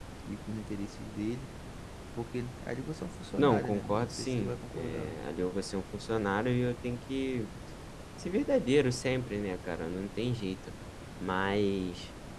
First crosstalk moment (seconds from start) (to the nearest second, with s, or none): 3 s